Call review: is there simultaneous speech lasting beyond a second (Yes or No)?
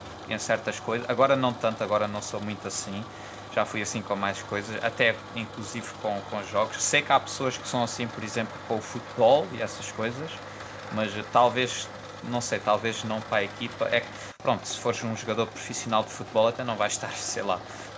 No